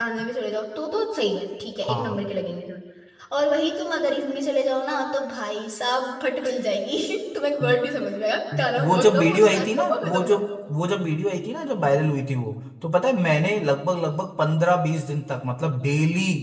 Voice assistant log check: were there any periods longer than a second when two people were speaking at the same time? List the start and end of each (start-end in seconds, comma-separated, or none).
8.6-10.4